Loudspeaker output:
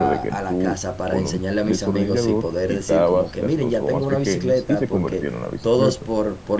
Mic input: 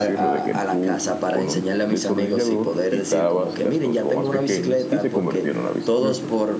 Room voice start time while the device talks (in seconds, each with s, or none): none